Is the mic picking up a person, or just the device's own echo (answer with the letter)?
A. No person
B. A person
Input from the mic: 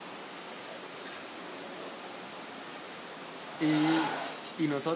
B